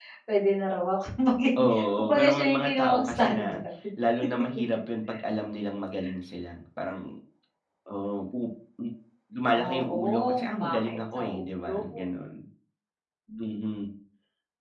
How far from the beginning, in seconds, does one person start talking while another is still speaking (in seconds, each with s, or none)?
1.6 s